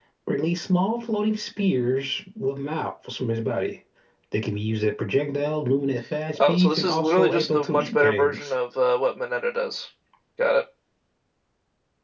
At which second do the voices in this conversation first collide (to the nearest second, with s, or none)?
6 s